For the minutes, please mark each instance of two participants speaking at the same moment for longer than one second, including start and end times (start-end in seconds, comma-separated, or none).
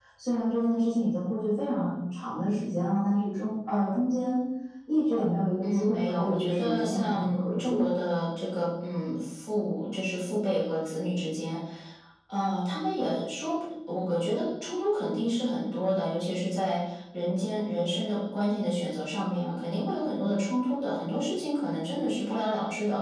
5.6-7.8